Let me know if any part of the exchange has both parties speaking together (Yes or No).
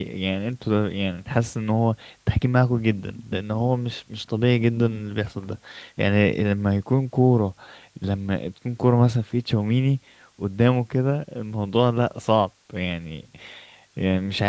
No